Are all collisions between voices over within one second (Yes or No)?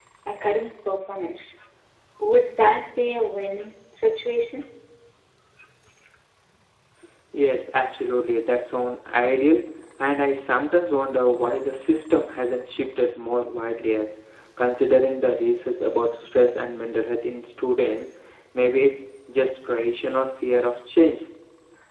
Yes